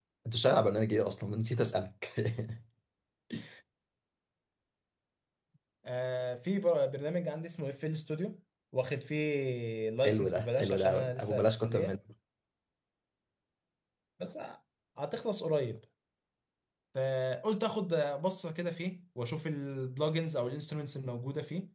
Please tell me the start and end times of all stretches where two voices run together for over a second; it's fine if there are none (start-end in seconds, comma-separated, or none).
10.0-12.0